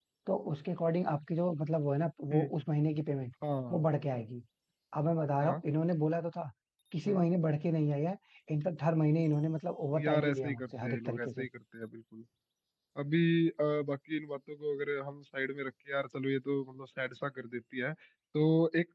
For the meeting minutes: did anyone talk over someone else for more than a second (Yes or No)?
Yes